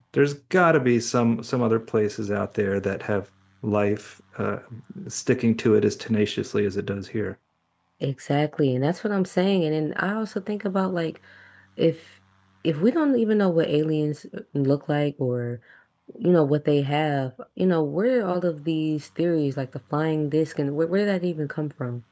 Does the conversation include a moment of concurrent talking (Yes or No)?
No